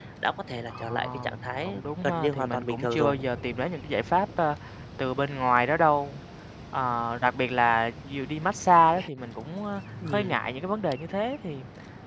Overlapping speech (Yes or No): Yes